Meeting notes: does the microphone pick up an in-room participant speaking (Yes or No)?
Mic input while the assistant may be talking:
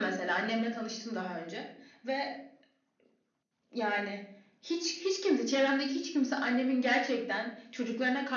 No